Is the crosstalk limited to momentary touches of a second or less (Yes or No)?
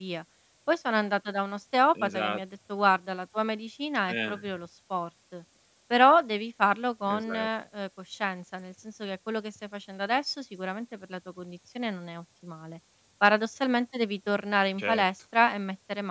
Yes